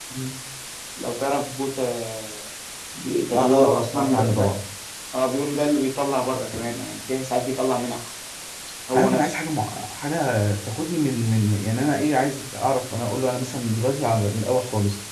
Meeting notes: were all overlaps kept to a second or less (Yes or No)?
No